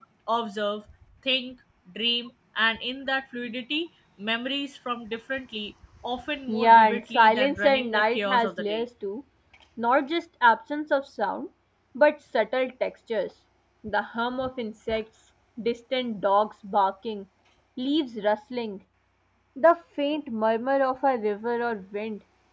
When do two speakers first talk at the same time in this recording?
6.5 s

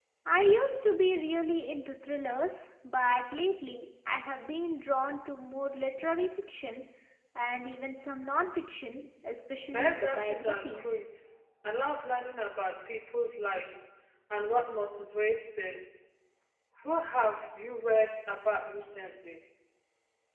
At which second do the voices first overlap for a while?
9.7 s

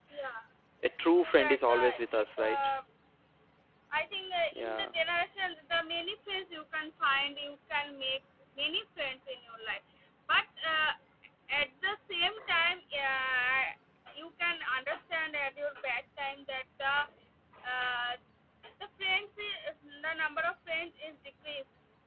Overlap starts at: 1.0 s

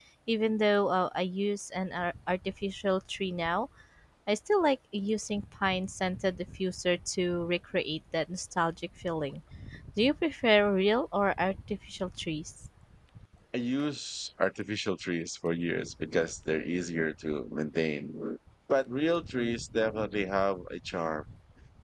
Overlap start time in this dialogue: none

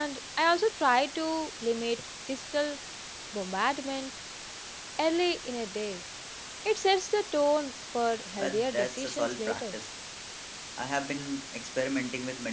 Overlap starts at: 8.4 s

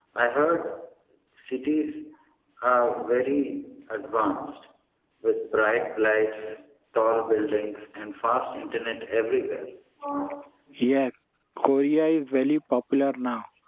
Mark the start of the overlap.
none

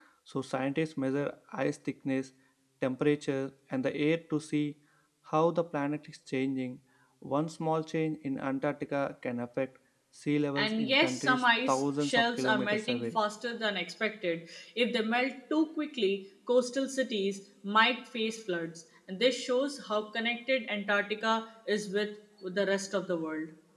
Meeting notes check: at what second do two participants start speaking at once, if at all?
10.6 s

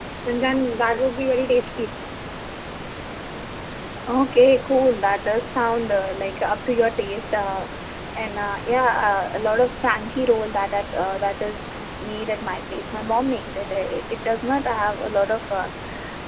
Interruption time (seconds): none

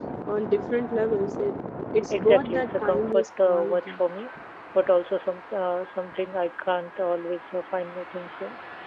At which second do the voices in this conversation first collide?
2.1 s

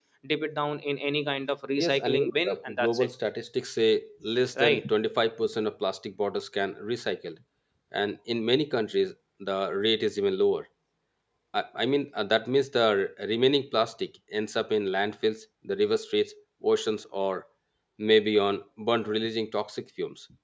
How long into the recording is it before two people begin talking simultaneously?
1.8 s

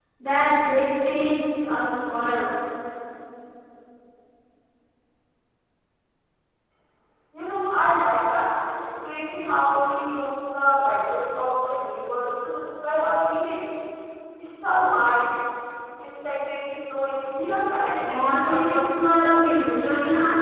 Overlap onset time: 18.0 s

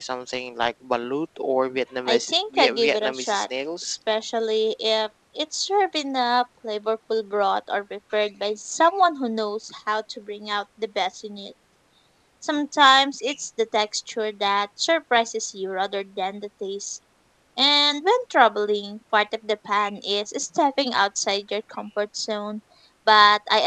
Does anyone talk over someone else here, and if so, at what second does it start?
2.0 s

